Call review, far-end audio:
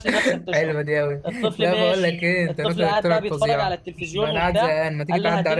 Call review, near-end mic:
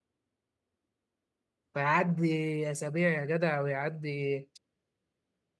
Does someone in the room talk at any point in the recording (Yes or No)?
Yes